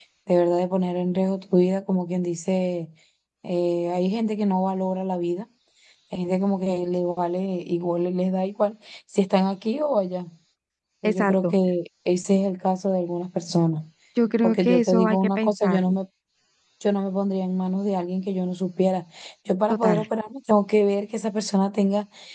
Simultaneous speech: Yes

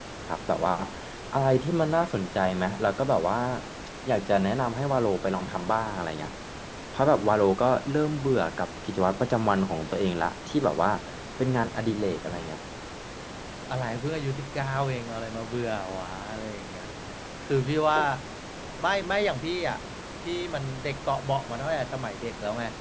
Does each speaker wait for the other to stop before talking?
Yes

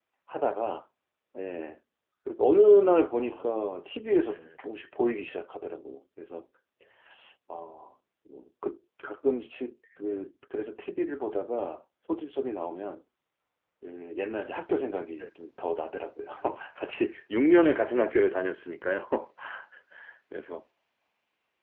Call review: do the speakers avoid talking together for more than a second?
Yes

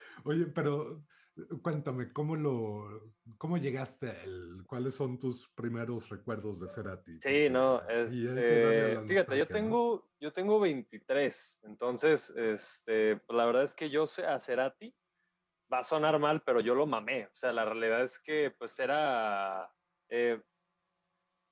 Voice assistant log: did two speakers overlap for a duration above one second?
Yes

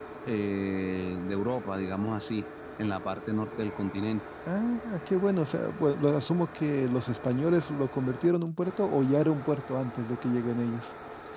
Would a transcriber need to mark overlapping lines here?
No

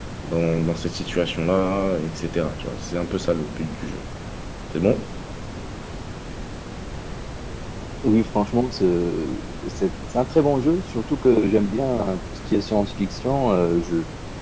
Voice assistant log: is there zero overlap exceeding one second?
Yes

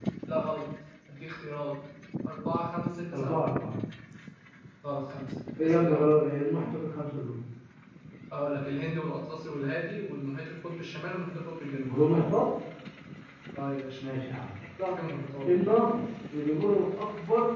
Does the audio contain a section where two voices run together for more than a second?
No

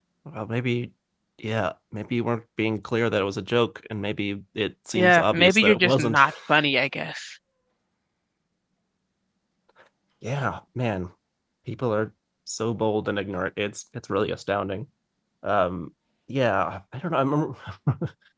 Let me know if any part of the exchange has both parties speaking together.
Yes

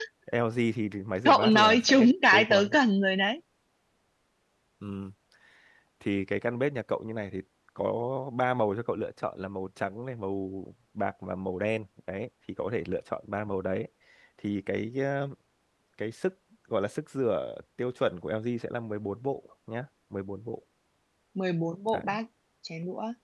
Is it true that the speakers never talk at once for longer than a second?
No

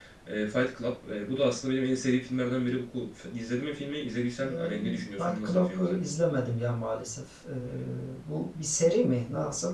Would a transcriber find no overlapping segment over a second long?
No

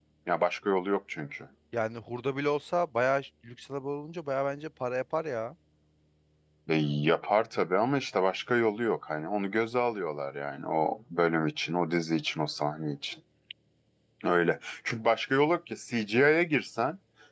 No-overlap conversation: Yes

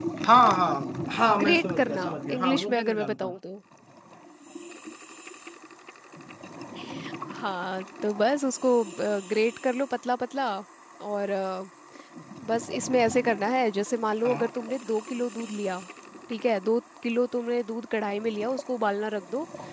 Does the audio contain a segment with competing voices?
Yes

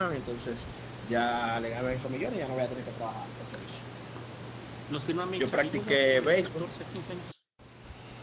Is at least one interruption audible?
Yes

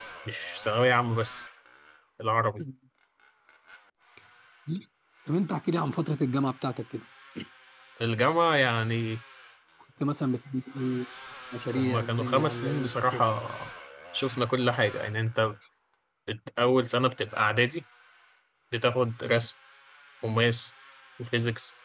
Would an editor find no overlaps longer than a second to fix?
No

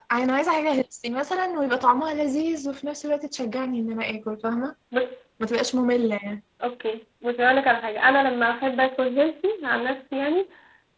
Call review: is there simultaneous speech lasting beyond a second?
No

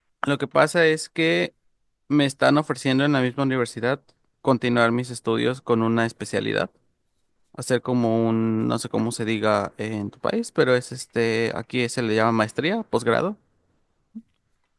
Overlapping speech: No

